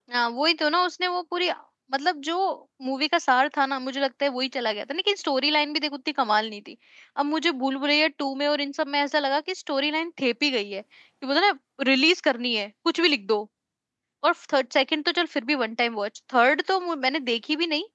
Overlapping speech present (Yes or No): No